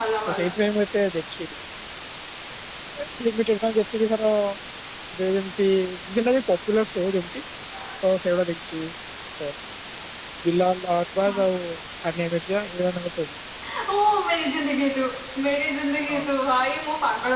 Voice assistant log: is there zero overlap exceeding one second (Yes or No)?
Yes